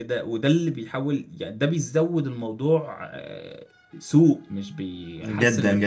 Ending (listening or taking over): taking over